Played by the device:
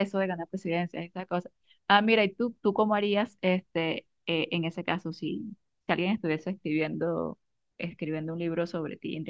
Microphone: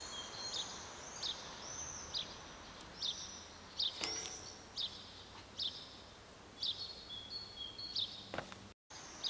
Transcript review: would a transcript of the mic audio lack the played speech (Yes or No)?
Yes